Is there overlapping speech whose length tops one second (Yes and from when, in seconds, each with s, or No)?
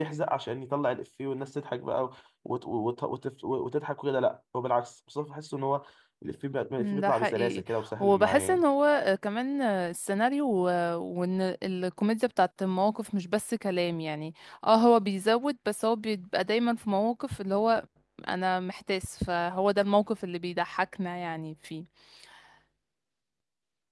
Yes, from 6.8 s